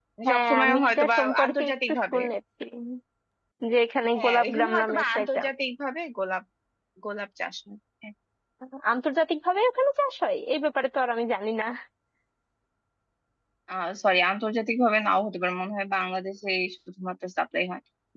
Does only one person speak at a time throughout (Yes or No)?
No